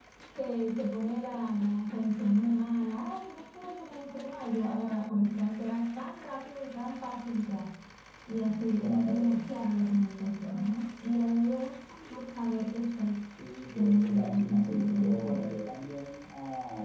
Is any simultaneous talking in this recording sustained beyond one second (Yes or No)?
Yes